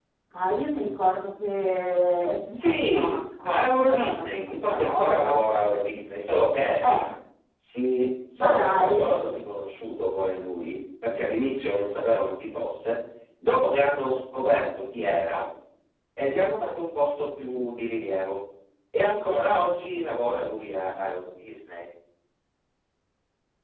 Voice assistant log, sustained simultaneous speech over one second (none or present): present